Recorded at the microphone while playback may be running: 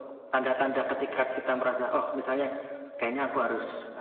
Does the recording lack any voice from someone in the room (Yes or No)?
Yes